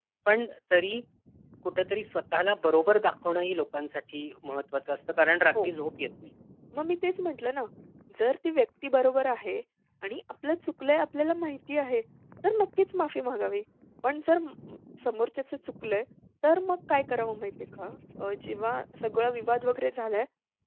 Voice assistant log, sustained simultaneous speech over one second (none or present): none